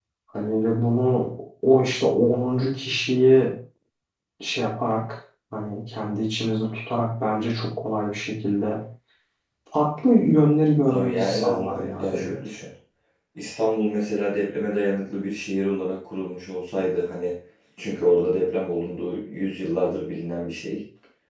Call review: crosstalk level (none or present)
present